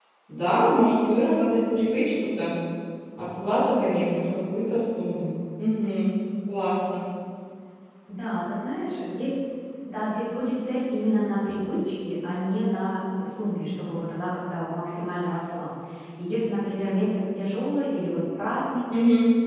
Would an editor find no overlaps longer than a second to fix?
Yes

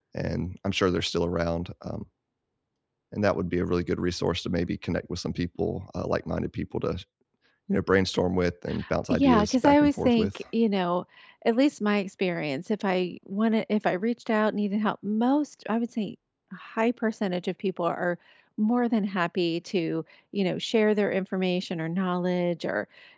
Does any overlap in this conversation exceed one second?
Yes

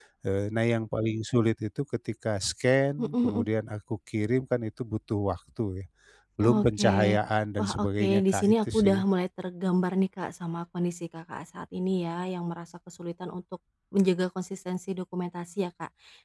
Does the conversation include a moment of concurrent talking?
Yes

